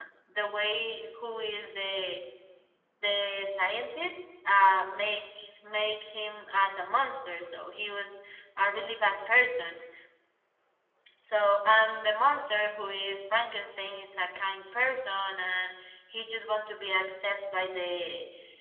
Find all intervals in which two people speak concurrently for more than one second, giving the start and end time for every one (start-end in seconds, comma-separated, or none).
none